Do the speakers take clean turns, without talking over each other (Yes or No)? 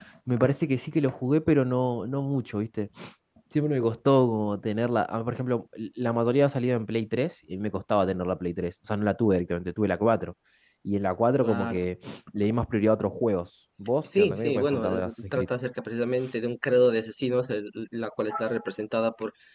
No